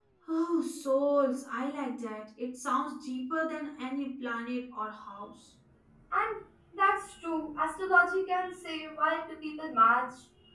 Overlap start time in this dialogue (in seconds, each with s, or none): none